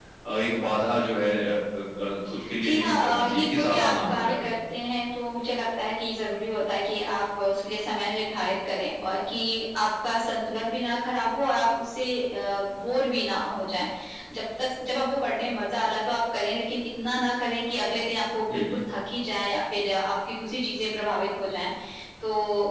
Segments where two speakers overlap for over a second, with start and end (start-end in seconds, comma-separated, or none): 2.6-4.5